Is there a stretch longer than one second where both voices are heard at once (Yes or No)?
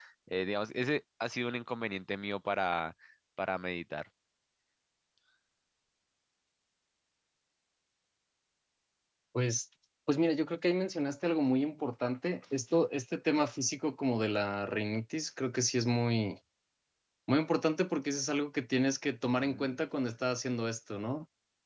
No